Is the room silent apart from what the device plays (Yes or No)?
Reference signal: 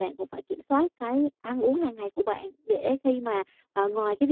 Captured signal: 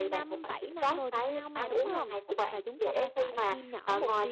No